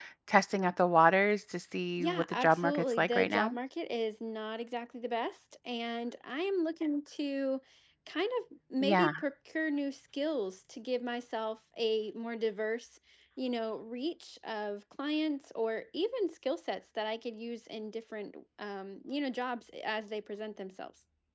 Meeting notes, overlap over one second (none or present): present